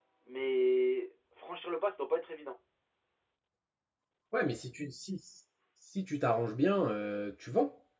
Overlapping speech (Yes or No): No